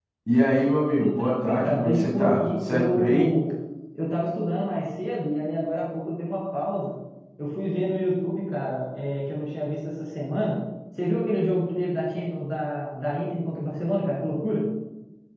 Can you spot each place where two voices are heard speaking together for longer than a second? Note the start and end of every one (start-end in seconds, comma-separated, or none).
1.0-3.3